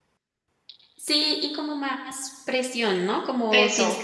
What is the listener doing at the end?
listening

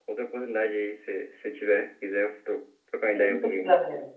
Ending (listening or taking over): taking over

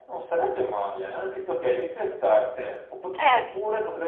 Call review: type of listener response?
listening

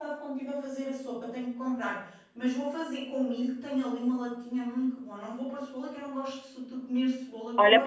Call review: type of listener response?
taking over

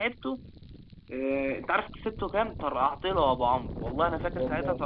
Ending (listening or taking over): listening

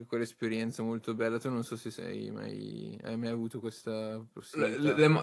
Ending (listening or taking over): taking over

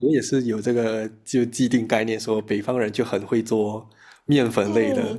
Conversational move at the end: taking over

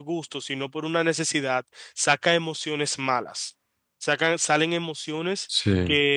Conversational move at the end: listening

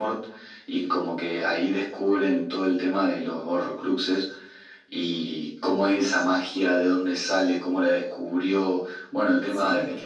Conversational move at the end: listening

